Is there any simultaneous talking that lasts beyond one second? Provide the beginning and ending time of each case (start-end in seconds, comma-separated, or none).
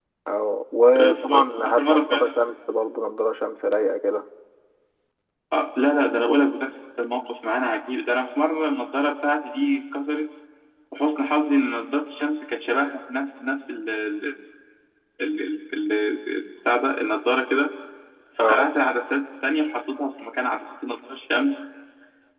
1.0-2.4